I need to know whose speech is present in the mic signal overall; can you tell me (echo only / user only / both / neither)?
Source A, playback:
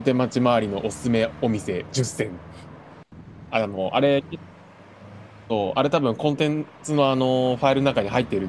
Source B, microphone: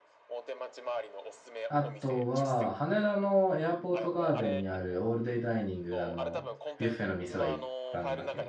both